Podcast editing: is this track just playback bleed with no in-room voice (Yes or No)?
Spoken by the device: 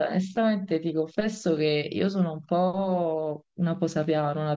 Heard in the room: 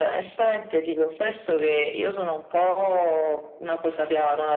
Yes